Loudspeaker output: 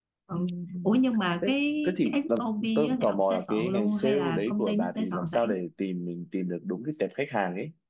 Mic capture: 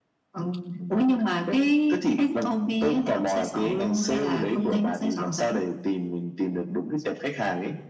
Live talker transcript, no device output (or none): ừ,